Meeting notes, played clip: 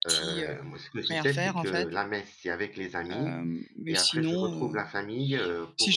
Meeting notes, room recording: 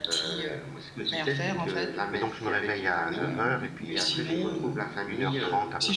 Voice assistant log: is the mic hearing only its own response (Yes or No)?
No